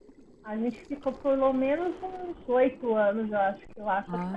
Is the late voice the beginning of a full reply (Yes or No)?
No